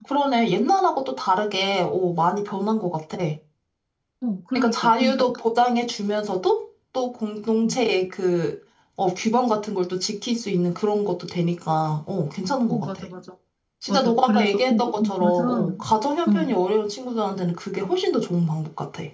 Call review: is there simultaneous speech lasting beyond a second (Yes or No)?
Yes